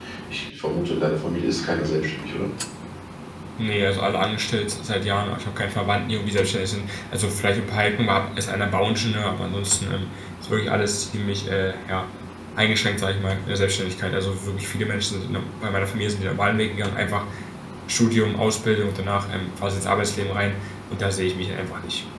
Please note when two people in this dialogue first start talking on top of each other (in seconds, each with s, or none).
none